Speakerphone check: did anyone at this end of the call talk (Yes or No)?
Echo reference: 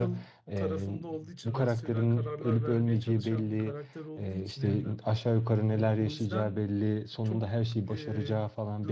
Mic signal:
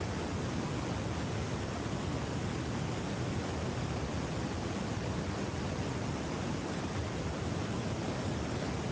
No